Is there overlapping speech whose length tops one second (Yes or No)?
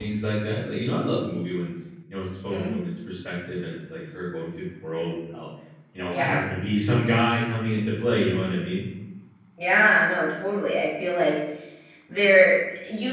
No